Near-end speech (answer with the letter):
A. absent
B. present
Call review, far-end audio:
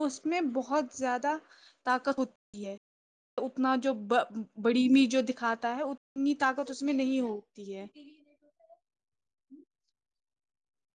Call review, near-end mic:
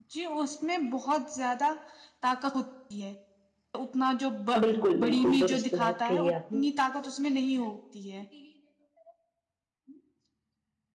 B